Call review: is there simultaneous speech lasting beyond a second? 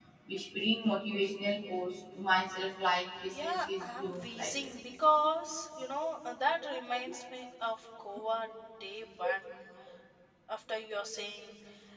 Yes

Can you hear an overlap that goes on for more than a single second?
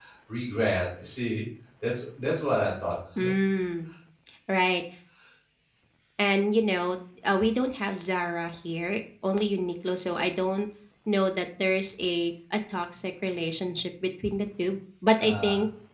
No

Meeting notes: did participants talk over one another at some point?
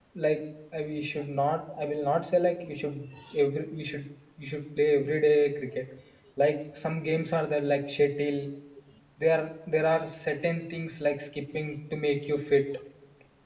No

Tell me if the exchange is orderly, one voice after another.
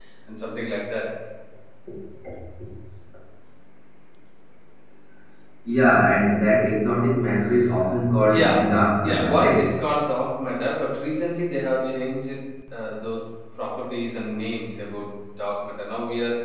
No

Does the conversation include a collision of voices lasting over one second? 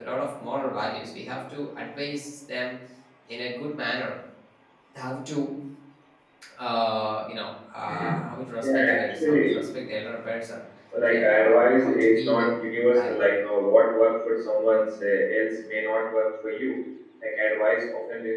Yes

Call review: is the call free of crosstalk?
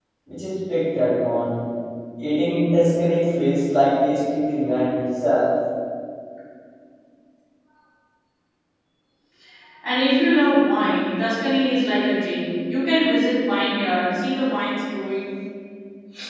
Yes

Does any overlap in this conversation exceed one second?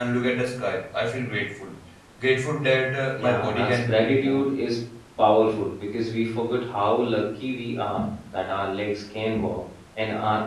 Yes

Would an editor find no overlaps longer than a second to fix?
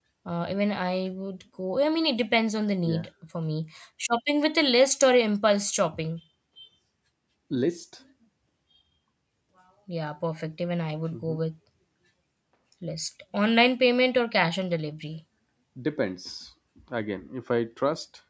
Yes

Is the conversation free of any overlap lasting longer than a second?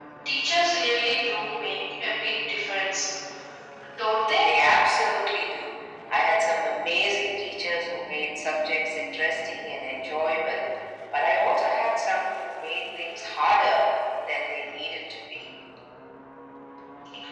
Yes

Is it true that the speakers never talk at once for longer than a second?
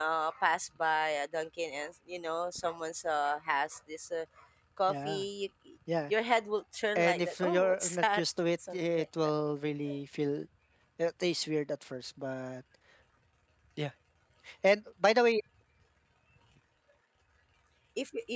No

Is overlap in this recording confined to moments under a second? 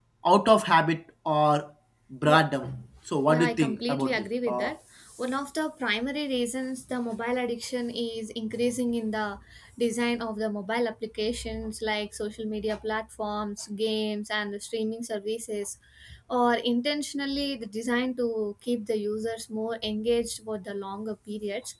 No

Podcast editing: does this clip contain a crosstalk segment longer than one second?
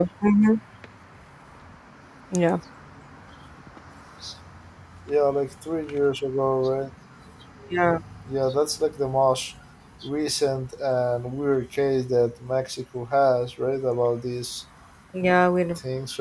No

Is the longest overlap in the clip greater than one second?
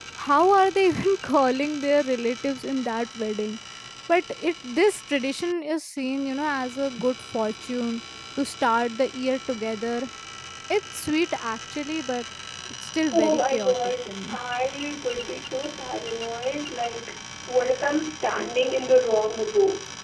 Yes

